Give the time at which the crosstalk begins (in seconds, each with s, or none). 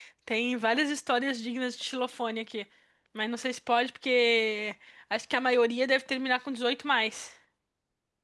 none